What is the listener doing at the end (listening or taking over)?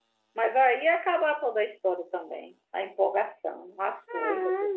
taking over